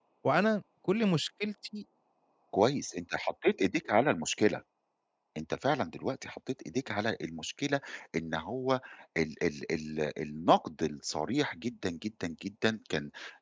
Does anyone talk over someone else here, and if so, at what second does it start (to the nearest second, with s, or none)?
none